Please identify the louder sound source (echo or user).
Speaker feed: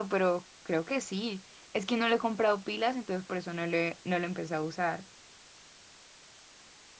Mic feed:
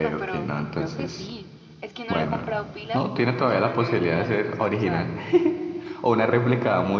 user